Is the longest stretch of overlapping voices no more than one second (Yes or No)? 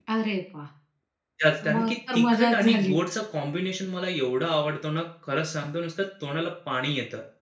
No